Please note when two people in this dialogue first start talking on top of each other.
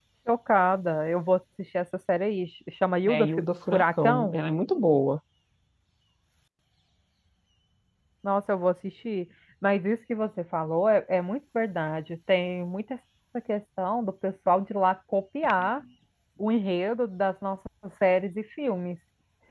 3.0 s

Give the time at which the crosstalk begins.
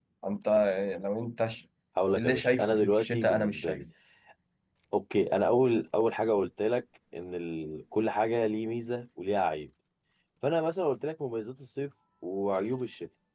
2.2 s

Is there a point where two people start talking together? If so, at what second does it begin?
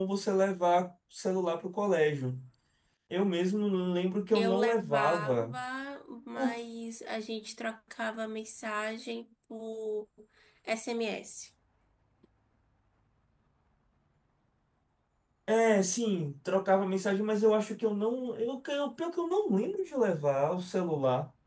4.3 s

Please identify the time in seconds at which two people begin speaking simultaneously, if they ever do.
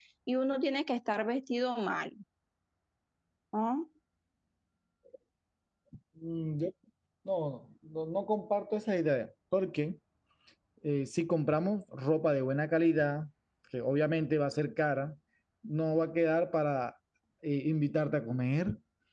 none

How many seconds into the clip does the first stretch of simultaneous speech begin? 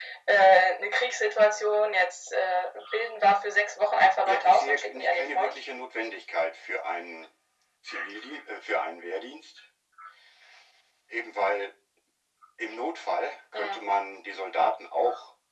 4.3 s

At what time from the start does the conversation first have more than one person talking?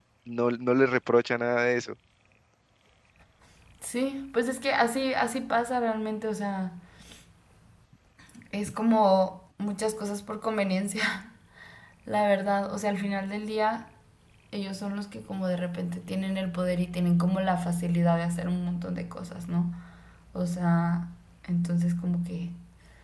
none

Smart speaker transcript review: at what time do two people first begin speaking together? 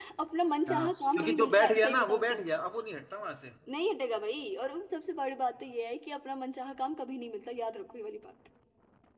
0.7 s

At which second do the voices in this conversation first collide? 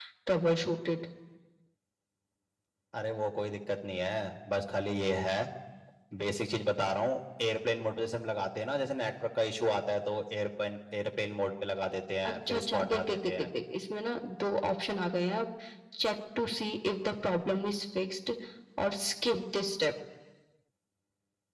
12.2 s

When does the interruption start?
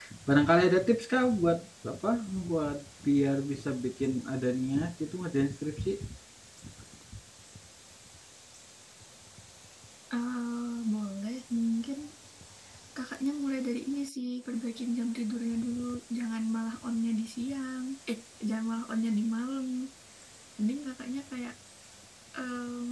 none

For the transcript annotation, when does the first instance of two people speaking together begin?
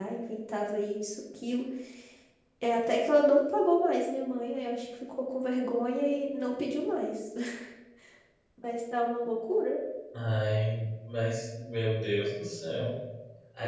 none

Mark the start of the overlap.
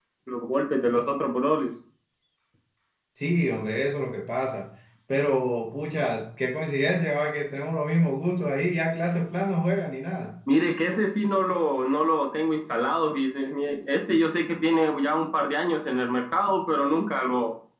none

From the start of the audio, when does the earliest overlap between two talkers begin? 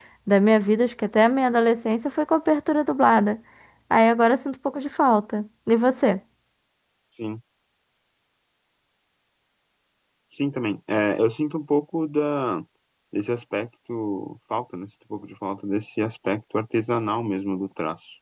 none

